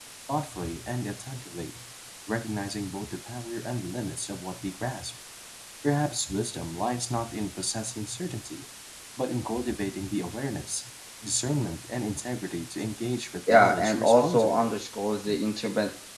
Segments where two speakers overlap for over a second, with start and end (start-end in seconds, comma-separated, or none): 13.5-14.7